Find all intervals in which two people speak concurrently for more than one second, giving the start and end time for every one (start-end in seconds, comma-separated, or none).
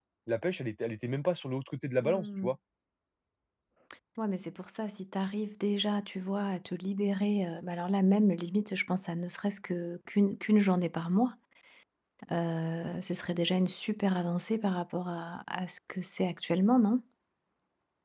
none